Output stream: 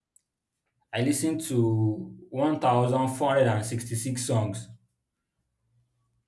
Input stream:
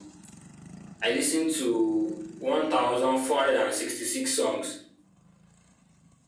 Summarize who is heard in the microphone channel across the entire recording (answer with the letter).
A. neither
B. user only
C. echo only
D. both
C